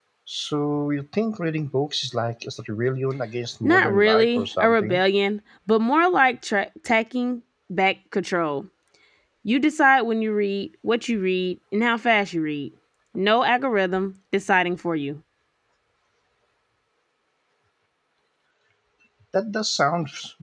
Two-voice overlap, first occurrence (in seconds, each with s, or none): 3.6 s